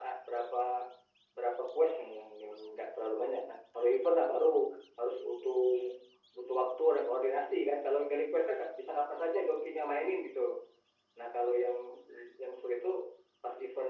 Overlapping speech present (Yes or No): No